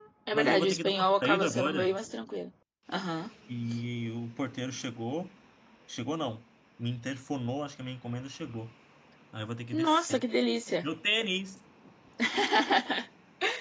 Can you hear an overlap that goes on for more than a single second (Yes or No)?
Yes